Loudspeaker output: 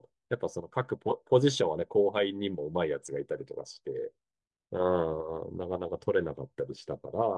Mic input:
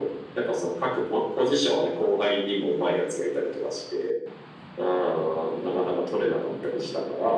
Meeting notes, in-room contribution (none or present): none